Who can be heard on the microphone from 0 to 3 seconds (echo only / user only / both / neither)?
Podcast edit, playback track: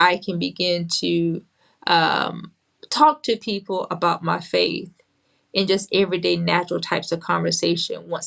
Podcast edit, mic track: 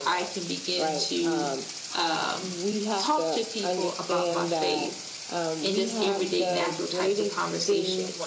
both